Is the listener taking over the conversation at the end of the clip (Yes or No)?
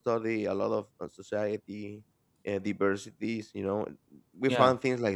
No